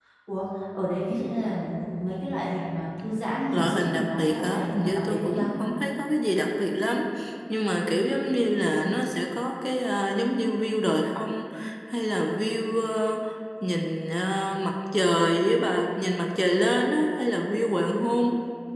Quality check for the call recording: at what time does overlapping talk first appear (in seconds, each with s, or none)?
3.5 s